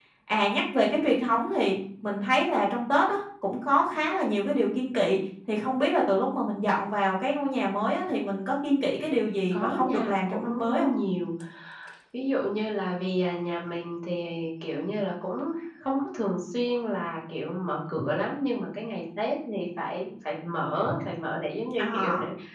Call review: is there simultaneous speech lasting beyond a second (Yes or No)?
Yes